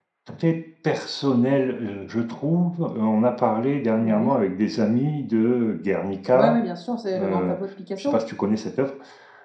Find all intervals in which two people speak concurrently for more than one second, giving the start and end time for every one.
none

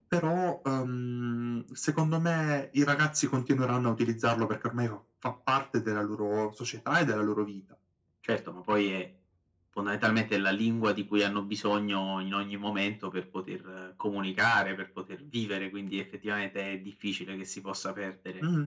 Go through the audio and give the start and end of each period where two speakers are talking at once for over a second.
none

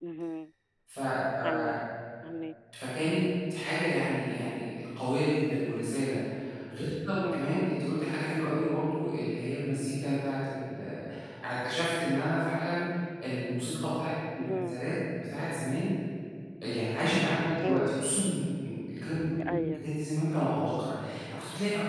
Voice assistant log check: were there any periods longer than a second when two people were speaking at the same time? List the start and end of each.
none

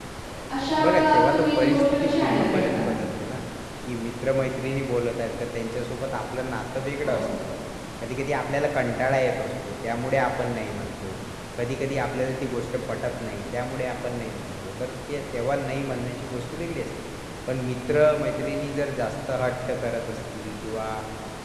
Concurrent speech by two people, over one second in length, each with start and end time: 0.8-2.8

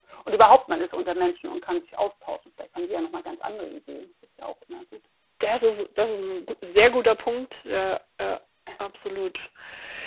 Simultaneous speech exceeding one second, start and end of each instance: none

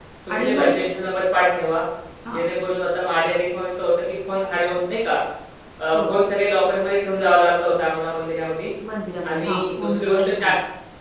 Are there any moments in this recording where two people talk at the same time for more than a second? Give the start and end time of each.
9.2-10.5

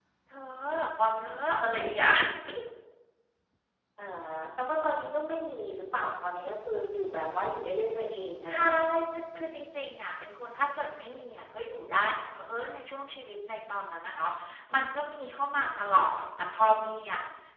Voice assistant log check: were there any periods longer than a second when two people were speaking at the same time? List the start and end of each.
none

